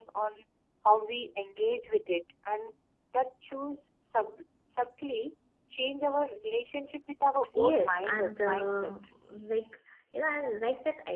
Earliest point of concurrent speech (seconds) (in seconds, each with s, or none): 7.6 s